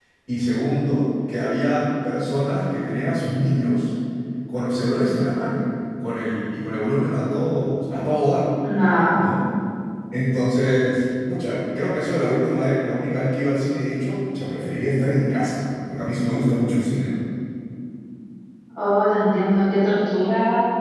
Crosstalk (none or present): none